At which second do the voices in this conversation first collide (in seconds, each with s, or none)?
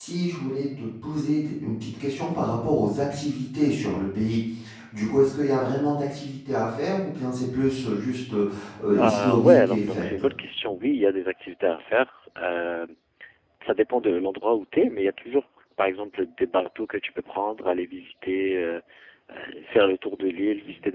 9.0 s